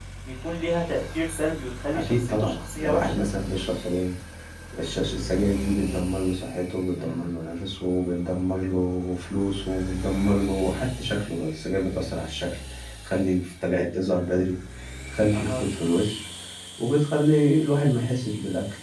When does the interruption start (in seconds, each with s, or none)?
2.0 s